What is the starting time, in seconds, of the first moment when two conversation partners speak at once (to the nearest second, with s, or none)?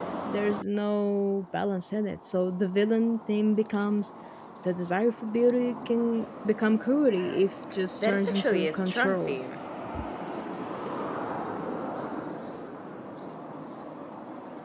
8 s